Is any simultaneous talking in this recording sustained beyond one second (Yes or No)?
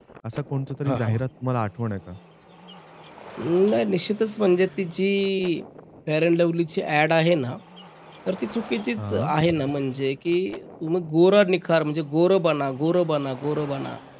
No